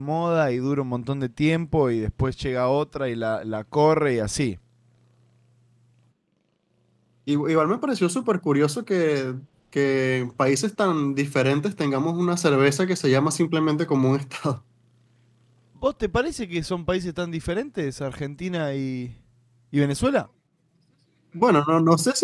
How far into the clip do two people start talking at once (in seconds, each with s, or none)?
none